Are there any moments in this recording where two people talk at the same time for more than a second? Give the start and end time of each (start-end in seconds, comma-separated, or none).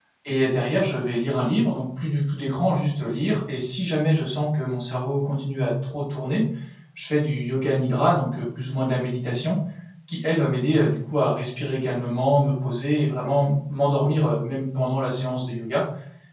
none